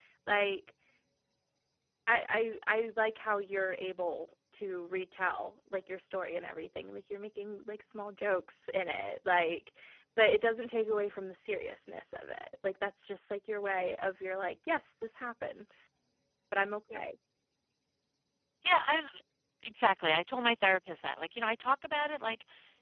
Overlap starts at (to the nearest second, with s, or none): none